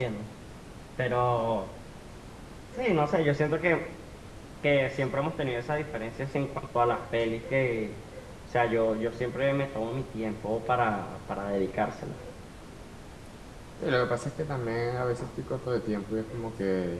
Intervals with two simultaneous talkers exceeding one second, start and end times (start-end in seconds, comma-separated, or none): none